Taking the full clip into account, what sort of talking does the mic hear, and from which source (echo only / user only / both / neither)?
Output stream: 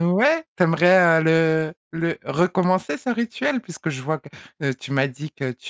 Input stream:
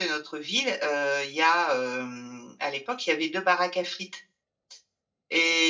user only